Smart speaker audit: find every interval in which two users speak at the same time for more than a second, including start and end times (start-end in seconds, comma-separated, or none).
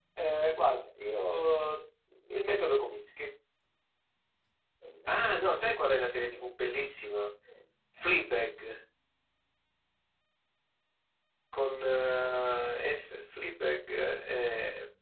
5.1-6.5